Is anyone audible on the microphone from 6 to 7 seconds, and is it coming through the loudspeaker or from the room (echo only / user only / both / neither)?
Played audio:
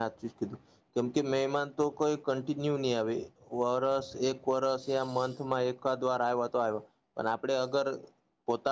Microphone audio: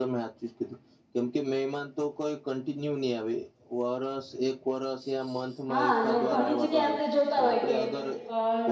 both